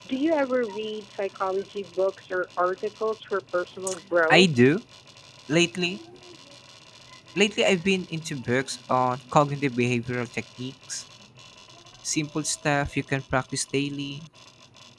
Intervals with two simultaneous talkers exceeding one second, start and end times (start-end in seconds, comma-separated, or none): none